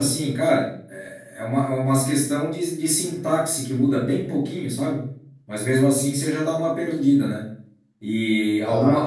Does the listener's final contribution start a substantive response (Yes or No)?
No